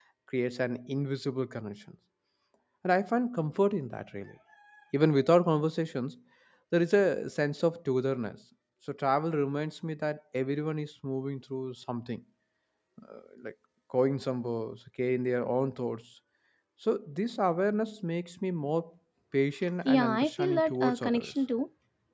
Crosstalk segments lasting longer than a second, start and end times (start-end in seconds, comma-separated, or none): 19.8-21.3